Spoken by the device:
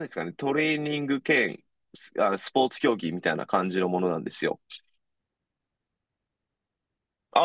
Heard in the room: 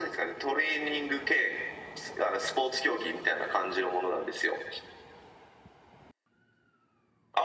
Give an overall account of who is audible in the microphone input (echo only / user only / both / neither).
echo only